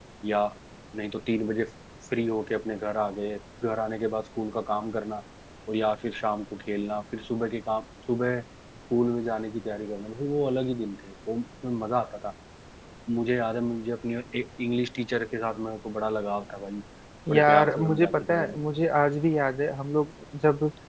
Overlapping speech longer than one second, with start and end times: 17.3-18.6

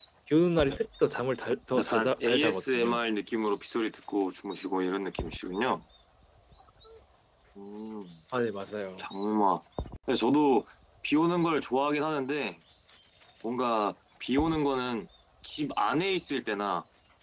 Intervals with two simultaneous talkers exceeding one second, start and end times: 1.8-3.0

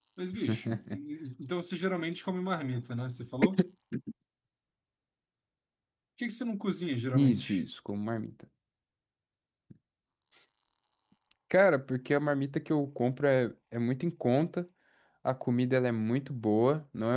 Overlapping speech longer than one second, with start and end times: none

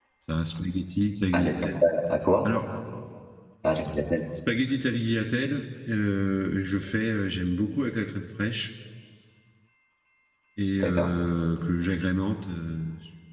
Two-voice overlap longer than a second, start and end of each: none

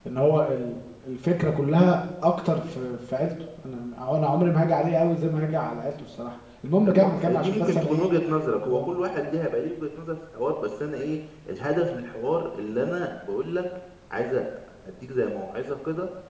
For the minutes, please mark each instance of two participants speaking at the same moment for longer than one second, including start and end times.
6.8-8.1

